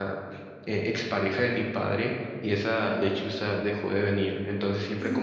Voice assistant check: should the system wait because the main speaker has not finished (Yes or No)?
Yes